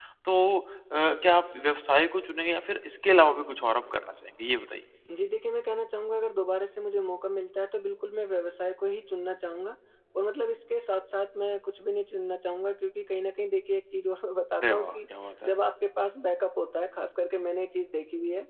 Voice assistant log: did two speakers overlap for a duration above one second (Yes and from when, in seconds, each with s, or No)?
No